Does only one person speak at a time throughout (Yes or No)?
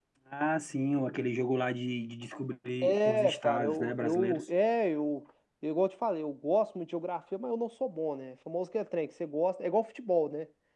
No